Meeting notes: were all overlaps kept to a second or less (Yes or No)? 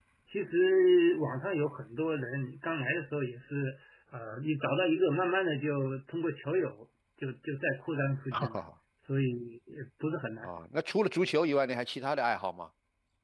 Yes